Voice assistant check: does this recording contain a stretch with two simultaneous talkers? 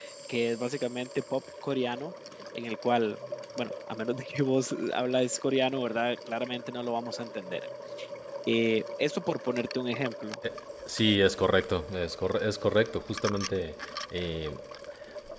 No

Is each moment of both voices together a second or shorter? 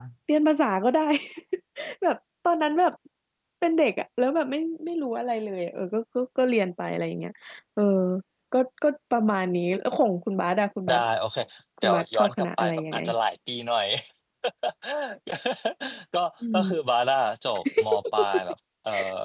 No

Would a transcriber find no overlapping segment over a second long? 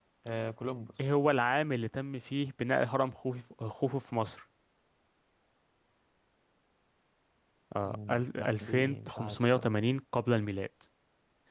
No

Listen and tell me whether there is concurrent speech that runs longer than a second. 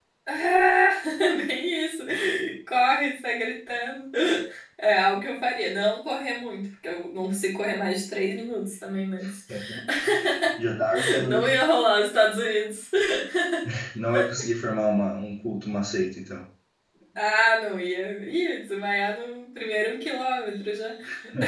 No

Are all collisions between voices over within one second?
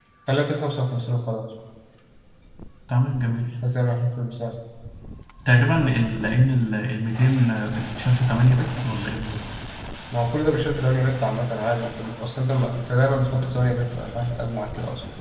Yes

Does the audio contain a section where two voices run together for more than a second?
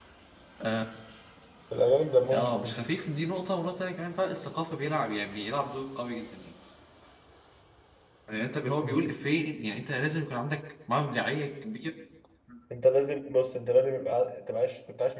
No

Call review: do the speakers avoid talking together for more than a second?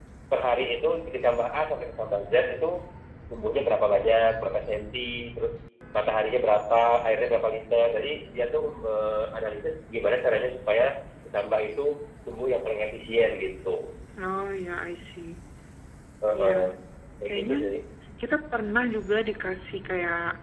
Yes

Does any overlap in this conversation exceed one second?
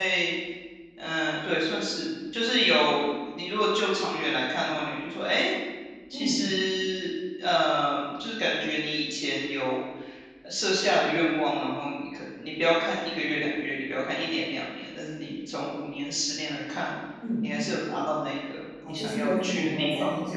Yes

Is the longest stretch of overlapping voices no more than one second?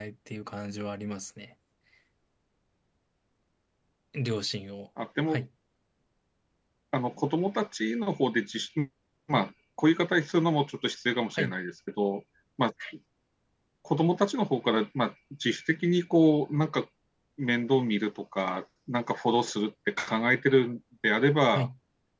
Yes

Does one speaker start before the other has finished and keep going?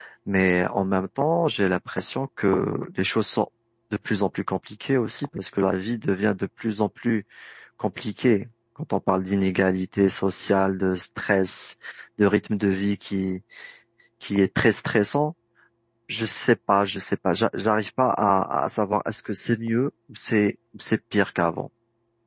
No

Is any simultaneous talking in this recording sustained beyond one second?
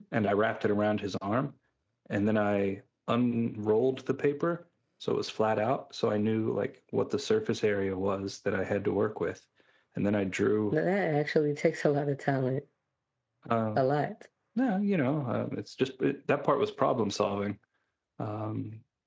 No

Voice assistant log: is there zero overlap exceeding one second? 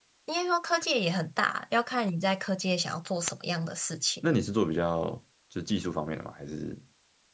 Yes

